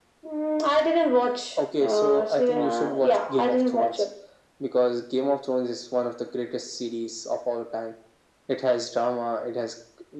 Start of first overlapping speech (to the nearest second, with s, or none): 2 s